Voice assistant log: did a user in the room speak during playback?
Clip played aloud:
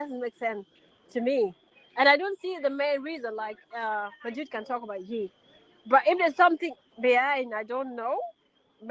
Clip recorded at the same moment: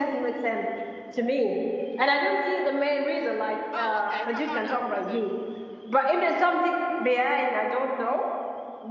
Yes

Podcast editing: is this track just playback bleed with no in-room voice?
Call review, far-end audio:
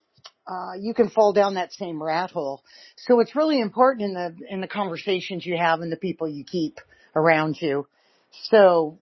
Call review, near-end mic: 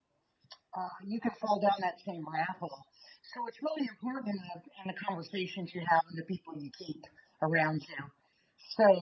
Yes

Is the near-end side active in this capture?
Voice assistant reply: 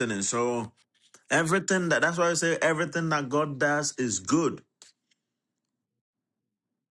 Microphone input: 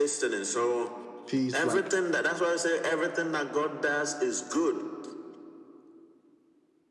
Yes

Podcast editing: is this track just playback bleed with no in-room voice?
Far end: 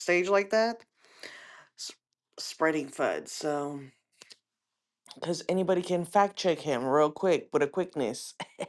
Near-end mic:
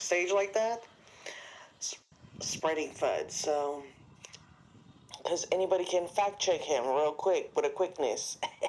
Yes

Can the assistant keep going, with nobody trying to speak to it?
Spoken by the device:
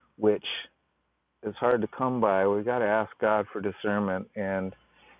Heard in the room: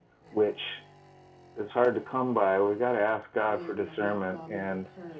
No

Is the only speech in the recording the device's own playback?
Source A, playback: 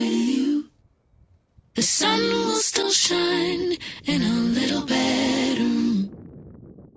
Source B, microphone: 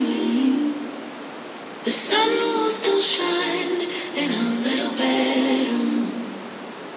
Yes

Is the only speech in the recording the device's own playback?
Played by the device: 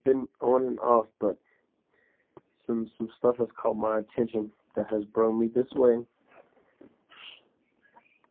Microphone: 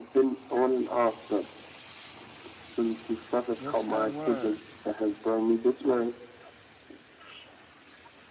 No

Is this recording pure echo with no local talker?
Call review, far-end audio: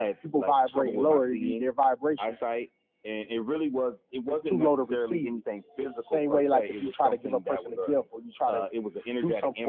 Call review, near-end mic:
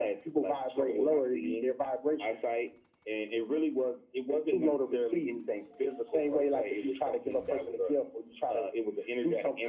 Yes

